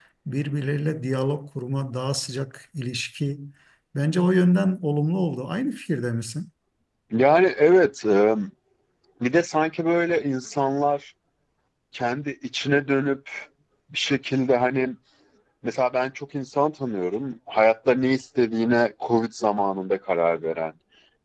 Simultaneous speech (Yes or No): No